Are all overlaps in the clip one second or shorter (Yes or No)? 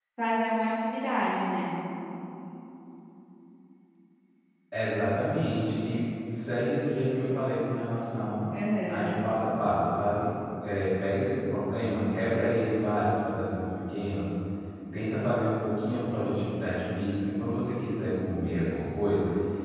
Yes